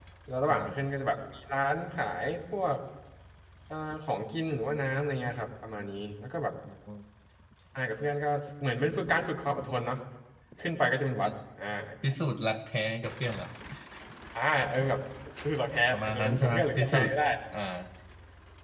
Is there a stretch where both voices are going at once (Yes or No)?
Yes